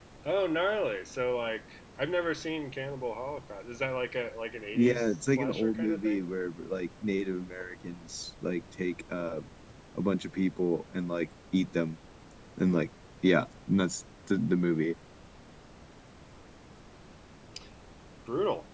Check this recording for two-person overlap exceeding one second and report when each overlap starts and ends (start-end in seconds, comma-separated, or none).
4.7-6.2